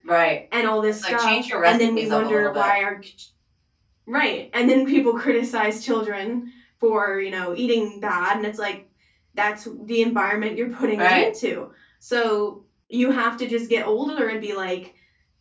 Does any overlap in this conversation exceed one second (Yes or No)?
Yes